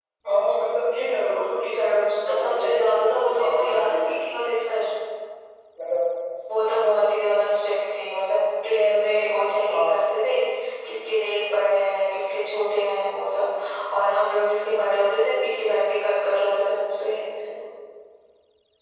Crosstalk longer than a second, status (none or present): present